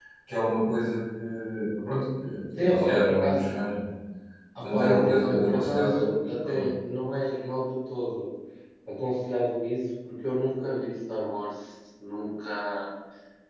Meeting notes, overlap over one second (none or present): present